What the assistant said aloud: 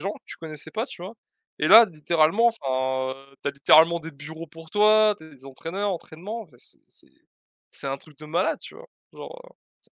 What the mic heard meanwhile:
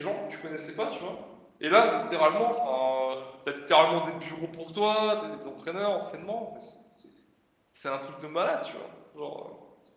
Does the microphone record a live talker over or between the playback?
No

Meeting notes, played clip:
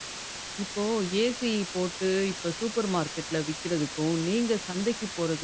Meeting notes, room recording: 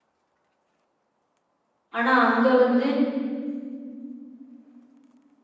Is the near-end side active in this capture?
Yes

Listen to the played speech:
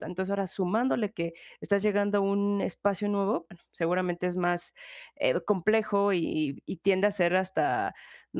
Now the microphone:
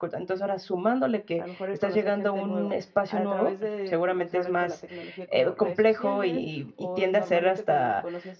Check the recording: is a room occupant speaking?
Yes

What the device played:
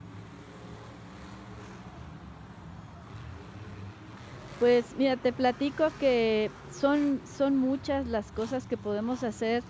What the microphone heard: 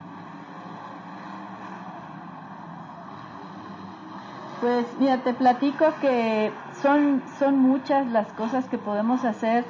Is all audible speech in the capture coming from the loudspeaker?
Yes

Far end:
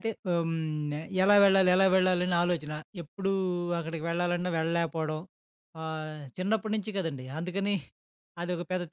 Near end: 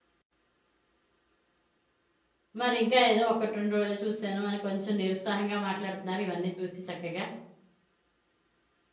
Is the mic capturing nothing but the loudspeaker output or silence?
No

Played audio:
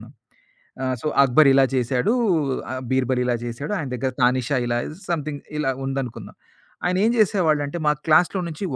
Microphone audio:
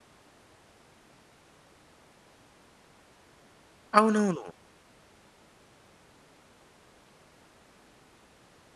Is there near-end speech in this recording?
Yes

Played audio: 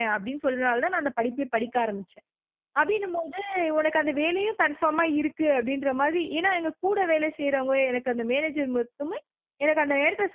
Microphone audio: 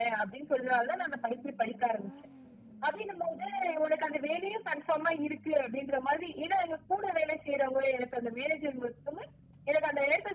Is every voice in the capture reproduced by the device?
Yes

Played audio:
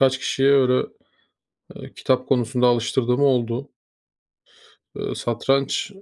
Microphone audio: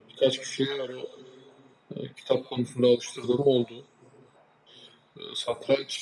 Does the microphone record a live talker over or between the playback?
No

